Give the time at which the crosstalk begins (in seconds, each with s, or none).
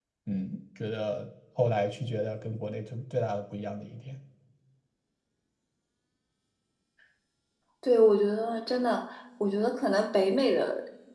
none